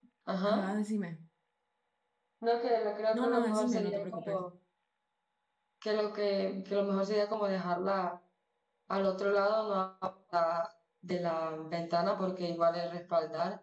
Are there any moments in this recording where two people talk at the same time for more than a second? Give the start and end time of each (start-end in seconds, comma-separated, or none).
3.2-4.5